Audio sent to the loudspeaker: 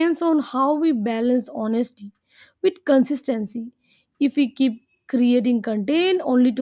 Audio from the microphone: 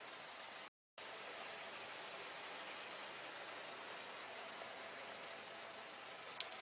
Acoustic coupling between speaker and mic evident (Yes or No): No